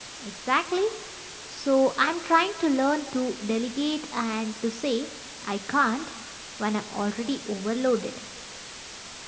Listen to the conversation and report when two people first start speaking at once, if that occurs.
none

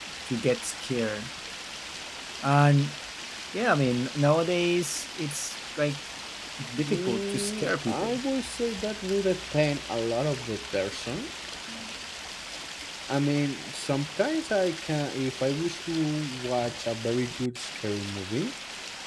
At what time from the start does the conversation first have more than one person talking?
7 s

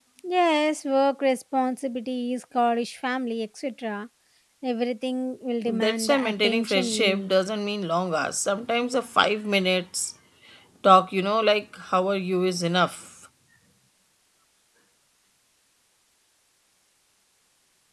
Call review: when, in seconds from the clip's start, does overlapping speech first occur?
6 s

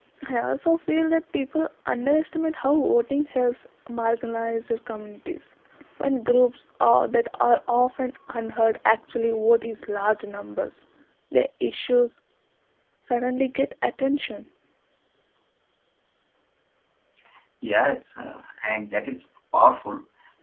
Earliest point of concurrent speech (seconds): none

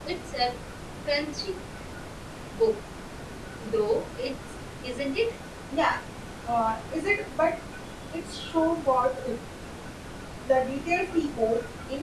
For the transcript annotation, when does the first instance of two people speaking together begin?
none

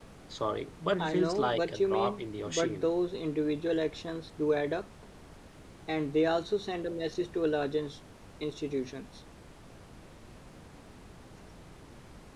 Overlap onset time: 1 s

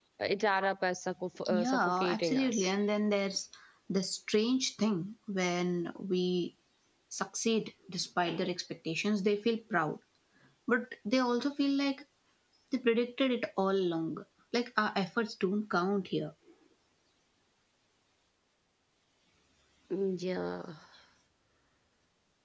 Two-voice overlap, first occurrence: 1 s

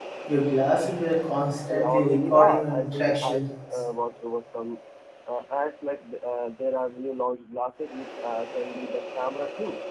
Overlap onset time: 2 s

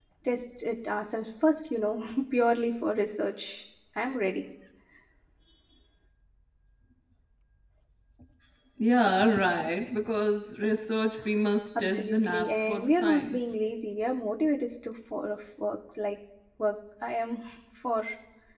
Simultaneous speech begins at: 12 s

